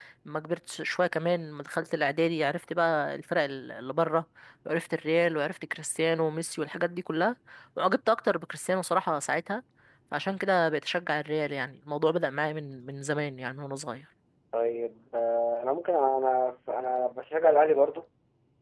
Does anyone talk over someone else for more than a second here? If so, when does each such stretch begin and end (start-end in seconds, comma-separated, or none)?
none